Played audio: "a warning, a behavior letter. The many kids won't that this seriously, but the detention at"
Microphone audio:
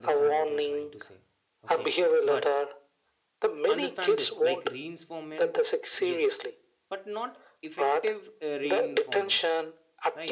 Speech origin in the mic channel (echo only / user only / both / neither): both